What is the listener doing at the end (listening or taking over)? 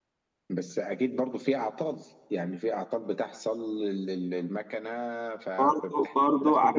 taking over